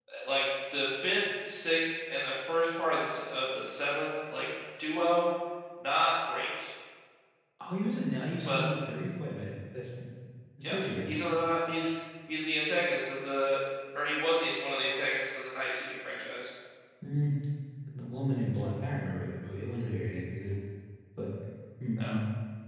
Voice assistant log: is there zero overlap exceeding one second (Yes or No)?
Yes